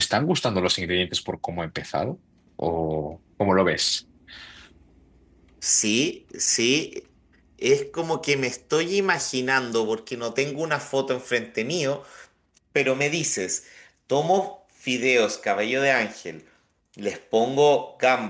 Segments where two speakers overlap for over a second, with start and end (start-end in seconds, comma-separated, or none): none